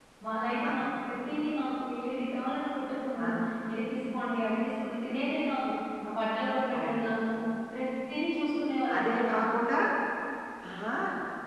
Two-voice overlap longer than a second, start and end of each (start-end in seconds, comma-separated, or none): none